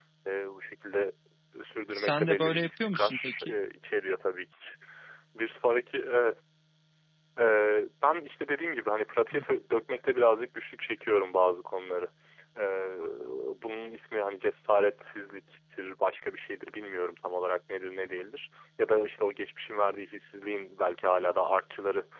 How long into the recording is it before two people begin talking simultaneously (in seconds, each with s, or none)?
1.9 s